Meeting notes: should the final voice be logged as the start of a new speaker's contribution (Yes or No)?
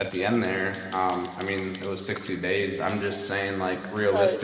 Yes